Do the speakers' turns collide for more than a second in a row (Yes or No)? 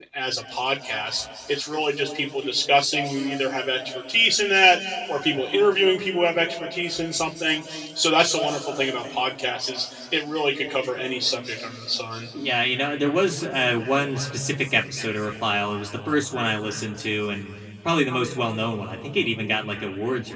No